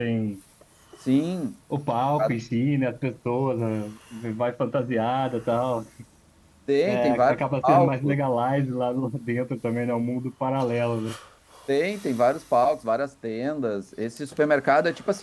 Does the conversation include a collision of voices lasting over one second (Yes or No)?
Yes